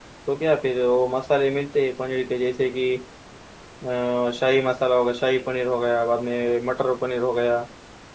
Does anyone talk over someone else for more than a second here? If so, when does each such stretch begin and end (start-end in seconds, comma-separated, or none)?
none